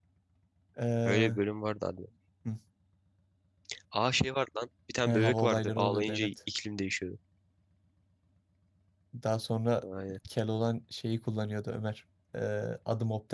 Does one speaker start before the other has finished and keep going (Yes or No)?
Yes